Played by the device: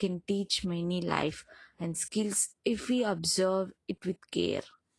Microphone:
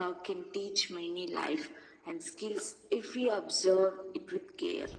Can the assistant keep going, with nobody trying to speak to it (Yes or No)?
Yes